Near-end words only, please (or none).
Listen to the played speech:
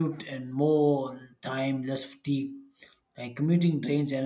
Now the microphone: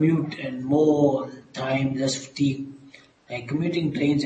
none